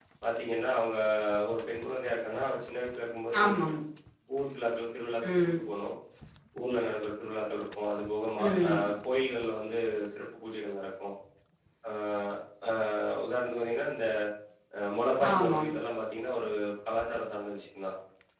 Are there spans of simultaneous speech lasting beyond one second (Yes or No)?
No